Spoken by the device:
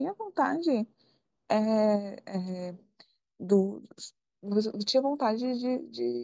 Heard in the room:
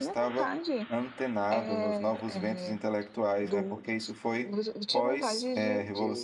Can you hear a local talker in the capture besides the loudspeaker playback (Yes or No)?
Yes